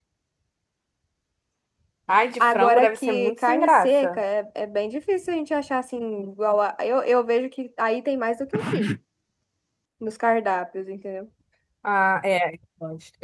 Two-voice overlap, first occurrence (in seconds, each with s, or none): 2.4 s